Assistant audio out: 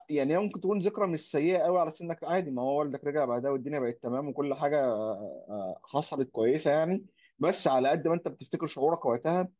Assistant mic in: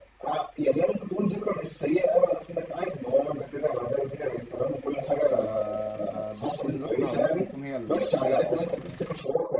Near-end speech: present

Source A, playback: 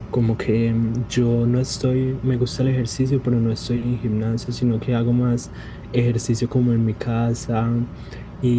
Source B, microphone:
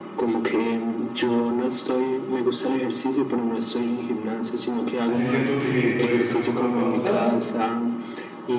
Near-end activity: present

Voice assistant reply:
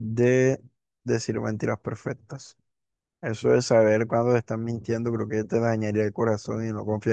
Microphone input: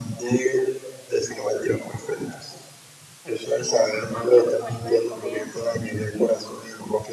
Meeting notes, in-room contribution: present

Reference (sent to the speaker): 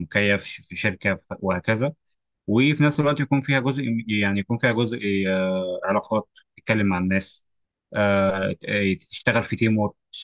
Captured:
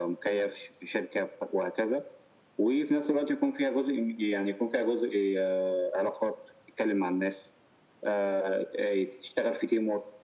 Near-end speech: none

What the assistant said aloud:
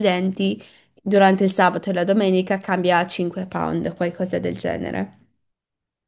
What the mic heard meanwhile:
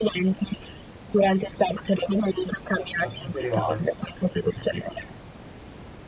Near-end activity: present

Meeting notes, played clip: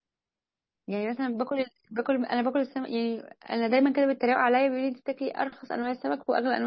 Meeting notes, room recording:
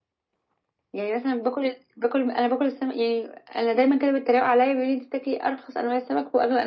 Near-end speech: none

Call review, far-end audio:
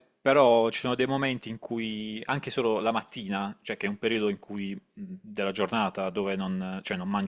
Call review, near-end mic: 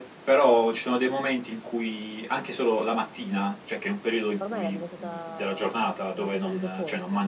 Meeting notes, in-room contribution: present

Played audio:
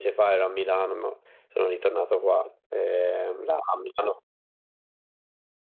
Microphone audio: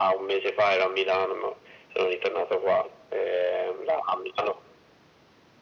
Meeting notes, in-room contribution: none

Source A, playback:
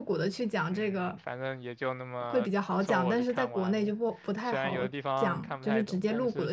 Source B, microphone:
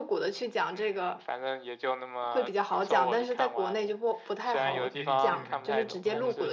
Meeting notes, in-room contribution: present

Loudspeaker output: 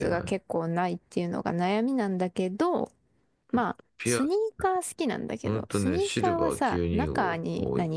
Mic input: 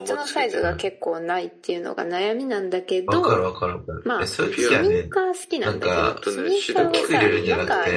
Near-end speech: present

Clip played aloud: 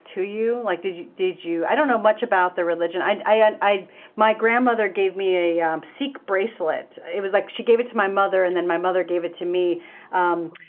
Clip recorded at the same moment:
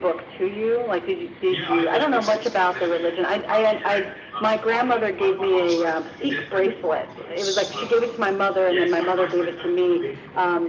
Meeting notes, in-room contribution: present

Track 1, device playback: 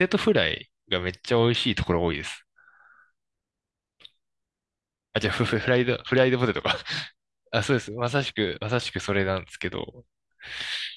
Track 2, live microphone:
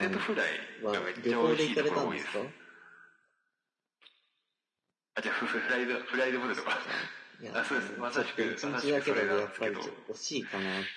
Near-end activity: present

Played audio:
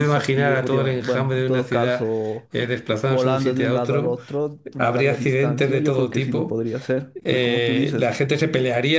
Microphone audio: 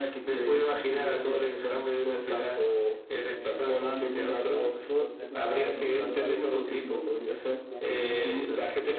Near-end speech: present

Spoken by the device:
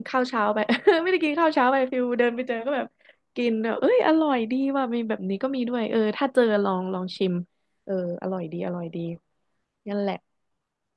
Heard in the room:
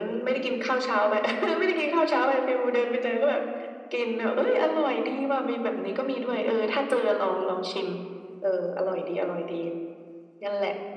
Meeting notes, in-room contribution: none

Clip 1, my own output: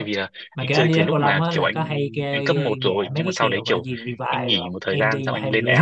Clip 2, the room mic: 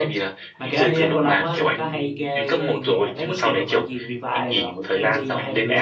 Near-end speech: none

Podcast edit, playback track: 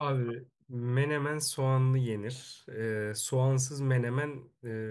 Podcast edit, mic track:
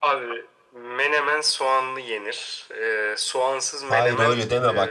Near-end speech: present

